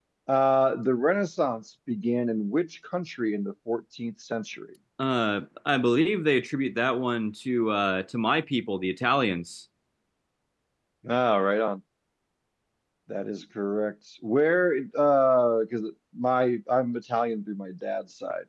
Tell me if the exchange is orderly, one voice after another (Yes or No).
Yes